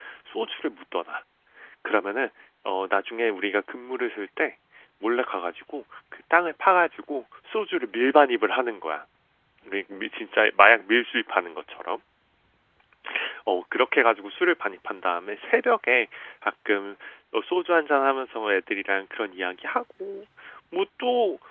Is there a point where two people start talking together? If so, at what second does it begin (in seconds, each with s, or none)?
none